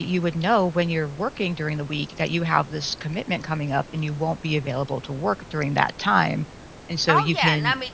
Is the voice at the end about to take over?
Yes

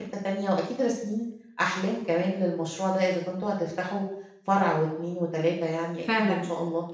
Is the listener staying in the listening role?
No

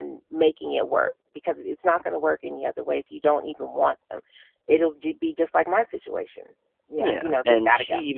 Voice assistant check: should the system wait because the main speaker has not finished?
No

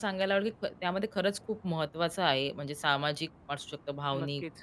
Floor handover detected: No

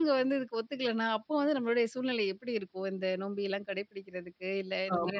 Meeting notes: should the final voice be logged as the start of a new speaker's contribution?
Yes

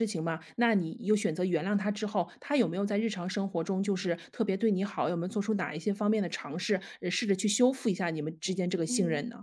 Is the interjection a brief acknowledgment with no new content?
No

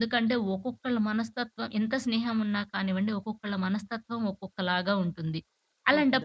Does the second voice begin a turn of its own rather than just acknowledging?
No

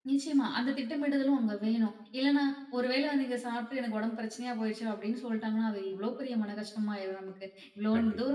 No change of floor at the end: Yes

